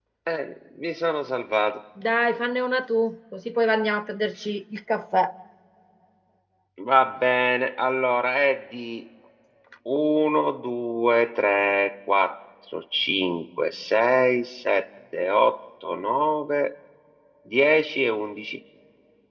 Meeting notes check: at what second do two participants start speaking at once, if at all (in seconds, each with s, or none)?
none